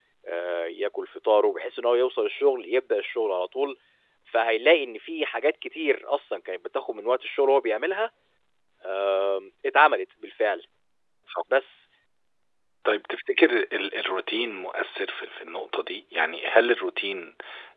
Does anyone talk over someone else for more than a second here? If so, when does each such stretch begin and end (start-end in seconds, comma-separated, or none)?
none